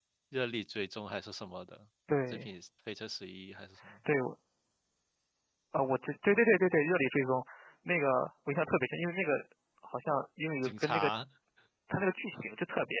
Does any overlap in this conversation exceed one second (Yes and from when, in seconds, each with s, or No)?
No